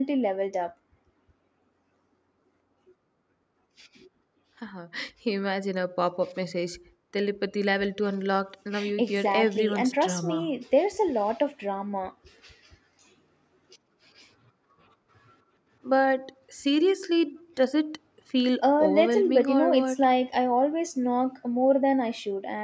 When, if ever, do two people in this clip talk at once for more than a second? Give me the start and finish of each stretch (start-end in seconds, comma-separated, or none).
9.0-10.5, 18.6-20.1